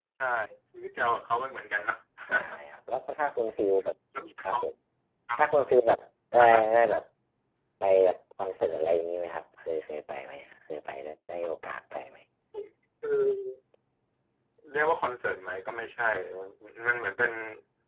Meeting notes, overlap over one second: none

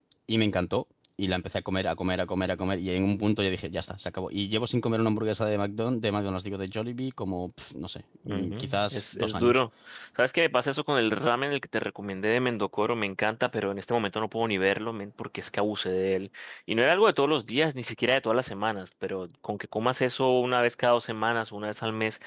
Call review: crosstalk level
present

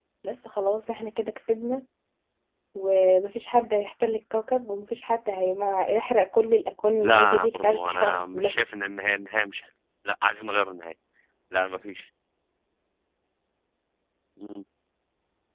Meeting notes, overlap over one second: present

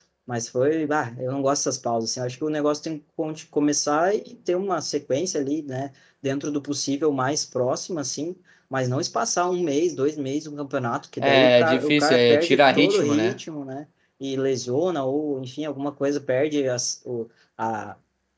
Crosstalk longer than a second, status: present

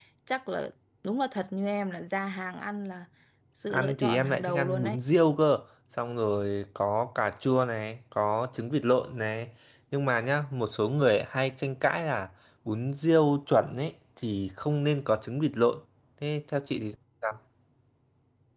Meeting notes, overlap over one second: present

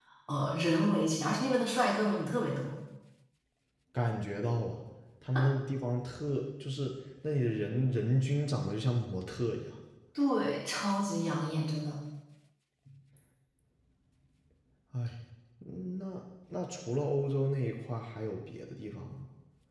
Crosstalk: none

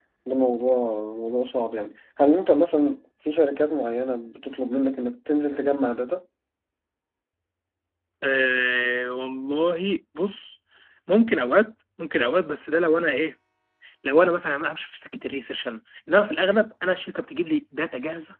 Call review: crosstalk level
none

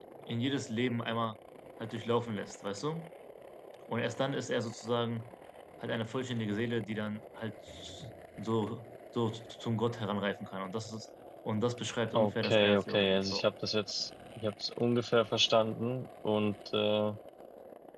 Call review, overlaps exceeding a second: present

